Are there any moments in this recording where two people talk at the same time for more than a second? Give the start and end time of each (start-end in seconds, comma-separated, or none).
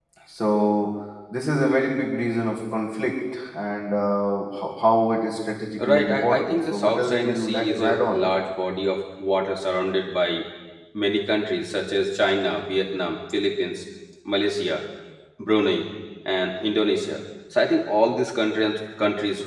5.8-8.2